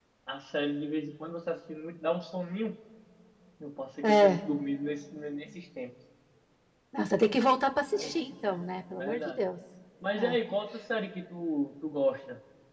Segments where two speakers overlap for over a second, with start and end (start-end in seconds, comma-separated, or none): 7.9-9.4